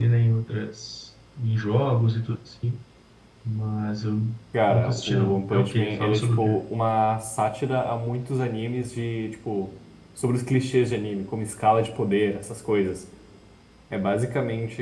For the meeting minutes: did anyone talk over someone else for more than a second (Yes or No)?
Yes